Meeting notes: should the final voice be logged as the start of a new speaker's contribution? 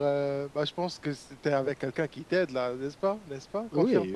Yes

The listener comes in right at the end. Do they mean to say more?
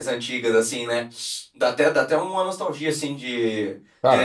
No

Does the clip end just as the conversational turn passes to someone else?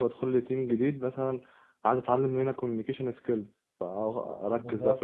No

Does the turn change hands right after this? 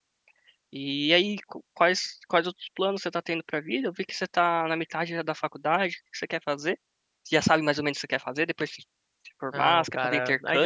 Yes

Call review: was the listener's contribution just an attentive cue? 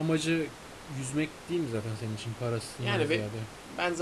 No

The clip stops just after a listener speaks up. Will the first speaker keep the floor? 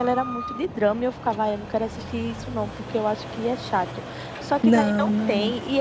Yes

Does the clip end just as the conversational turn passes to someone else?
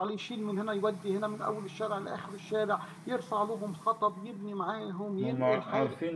Yes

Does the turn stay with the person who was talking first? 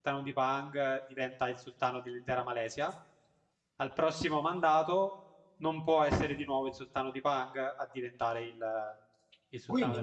No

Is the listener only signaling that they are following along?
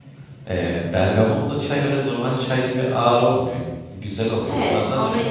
No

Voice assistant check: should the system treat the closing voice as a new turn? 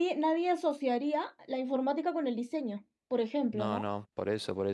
Yes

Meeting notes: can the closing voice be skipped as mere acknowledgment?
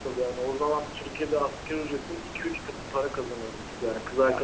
Yes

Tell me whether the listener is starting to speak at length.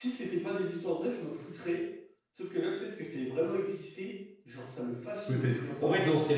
Yes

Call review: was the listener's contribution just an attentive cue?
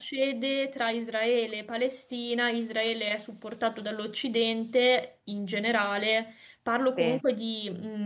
Yes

